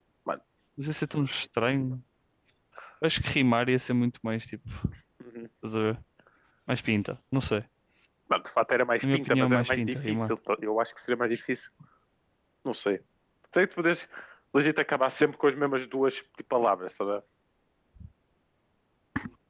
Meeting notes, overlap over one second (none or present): present